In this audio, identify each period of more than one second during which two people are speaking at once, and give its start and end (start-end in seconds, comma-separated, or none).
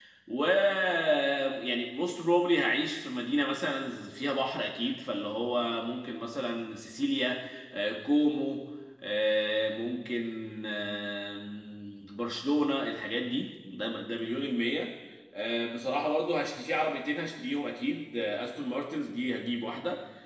none